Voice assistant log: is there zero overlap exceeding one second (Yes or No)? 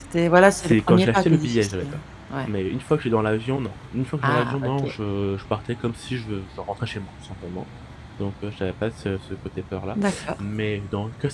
No